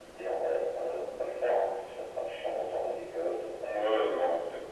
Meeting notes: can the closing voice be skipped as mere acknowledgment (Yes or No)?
No